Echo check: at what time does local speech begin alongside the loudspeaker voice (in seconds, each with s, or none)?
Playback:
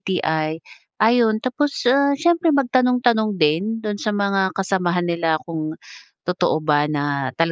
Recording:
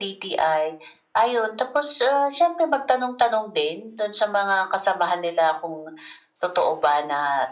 none